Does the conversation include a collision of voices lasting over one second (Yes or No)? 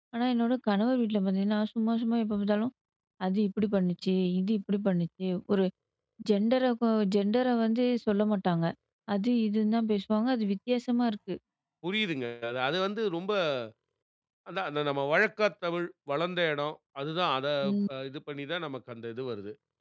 No